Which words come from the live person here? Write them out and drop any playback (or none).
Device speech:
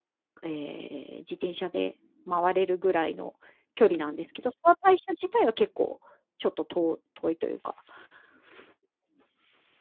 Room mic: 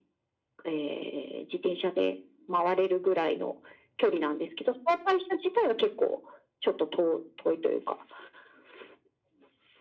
none